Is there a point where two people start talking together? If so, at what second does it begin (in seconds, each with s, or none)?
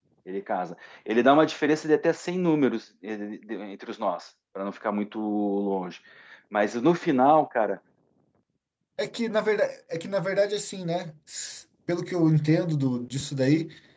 none